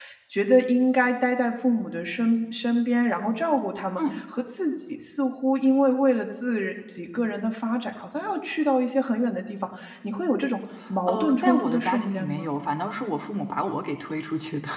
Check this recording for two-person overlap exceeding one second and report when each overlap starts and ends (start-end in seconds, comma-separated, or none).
11.1-12.5